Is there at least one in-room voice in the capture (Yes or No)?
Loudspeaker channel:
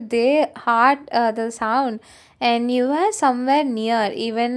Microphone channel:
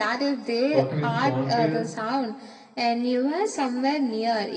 Yes